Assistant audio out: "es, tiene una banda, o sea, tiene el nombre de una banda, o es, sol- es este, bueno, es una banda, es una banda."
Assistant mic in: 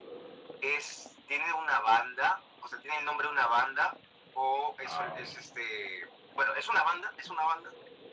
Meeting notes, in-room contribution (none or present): present